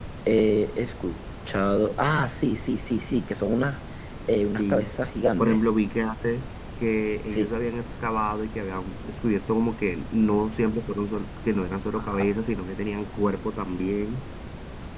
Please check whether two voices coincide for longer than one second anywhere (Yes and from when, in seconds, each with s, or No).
No